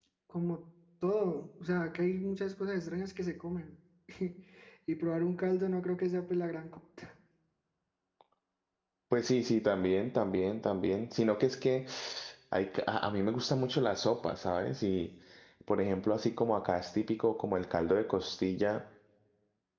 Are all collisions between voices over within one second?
Yes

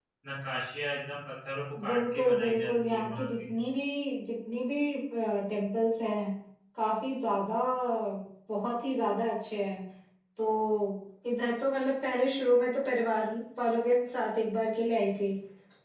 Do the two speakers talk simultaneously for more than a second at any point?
Yes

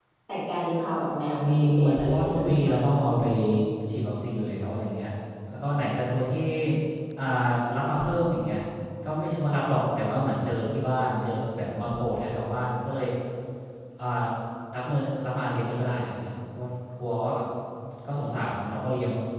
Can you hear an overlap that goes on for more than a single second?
Yes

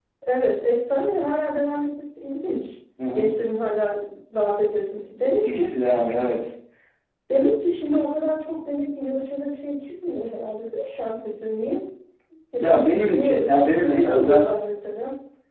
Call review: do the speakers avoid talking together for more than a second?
No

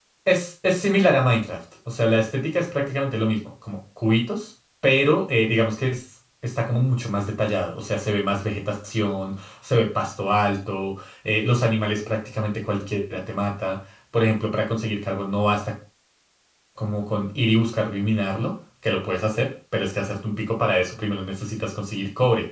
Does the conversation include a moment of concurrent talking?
No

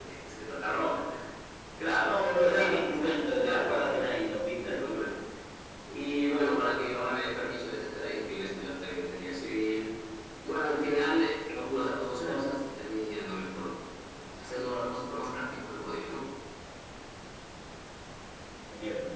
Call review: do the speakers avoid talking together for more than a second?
No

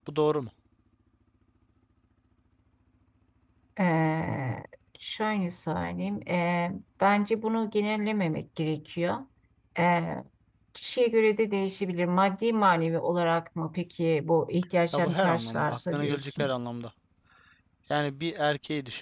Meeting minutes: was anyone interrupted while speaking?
Yes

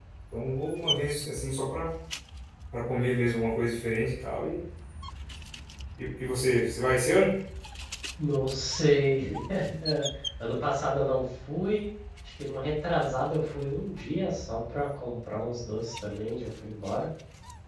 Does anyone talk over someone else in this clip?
No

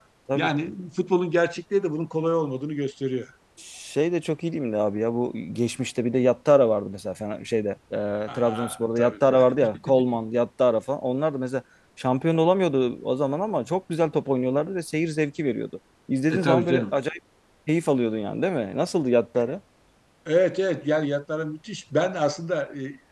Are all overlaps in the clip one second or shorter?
No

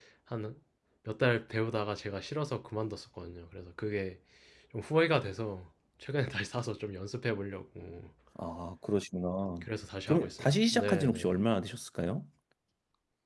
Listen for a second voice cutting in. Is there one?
Yes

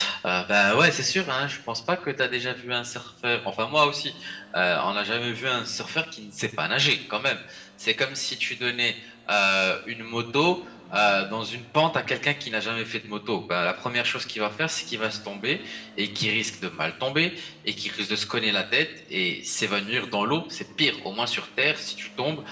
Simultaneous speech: No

